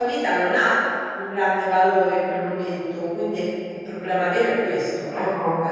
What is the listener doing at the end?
taking over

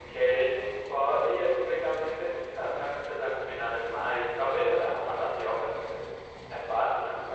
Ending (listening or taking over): taking over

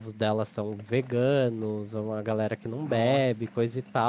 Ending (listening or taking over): listening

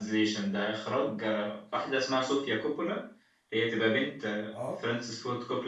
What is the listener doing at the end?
listening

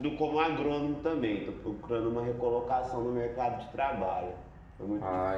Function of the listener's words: taking over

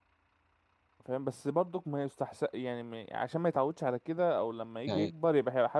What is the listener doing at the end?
listening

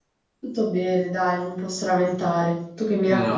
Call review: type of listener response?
taking over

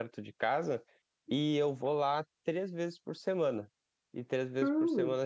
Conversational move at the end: taking over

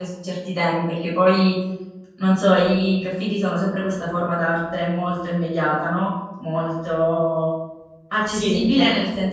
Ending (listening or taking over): listening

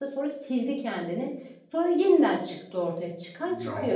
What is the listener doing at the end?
taking over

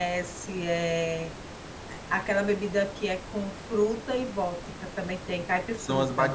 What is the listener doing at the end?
taking over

